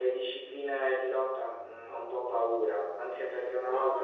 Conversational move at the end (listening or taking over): listening